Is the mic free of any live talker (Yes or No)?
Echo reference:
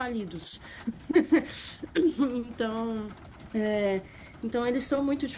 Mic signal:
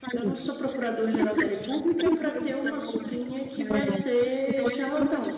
No